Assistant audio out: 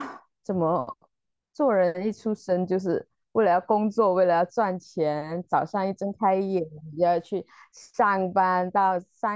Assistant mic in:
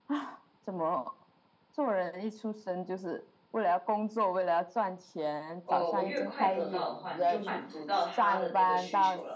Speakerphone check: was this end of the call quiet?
No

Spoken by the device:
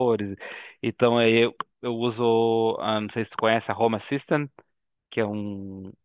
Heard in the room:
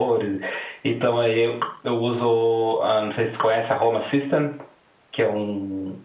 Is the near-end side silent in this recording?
Yes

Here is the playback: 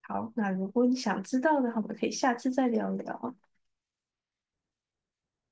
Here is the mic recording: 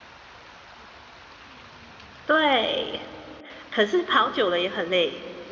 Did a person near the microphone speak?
Yes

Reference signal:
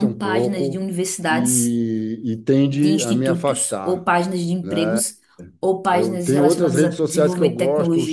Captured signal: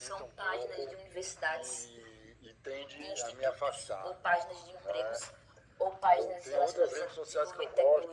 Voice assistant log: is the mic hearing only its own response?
Yes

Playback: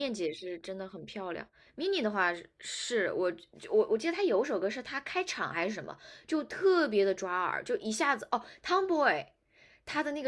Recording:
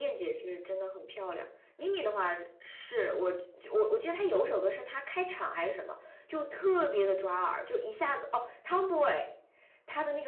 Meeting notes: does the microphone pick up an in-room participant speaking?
No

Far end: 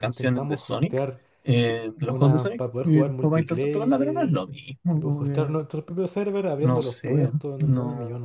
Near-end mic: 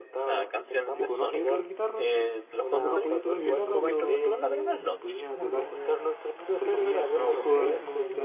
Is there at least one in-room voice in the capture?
Yes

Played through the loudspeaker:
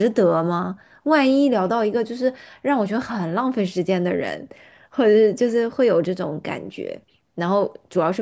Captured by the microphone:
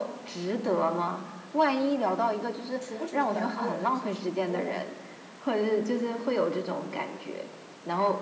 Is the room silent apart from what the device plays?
No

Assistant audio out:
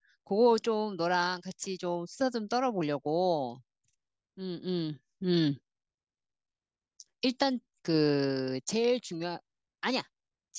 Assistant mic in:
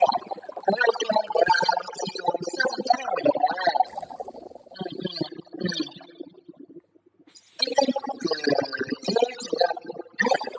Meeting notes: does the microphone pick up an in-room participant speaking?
No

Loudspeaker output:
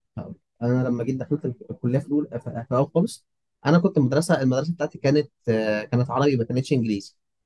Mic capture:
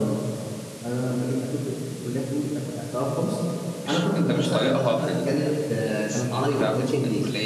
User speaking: Yes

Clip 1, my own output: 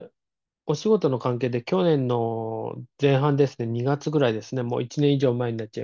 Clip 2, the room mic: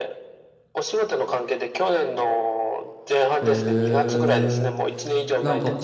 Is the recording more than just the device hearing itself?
Yes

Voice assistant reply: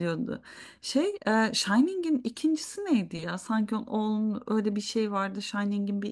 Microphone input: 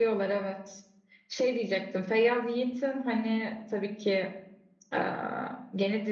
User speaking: Yes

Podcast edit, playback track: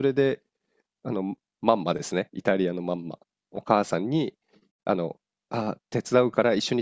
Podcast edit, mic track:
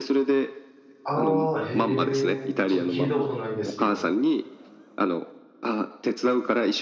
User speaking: Yes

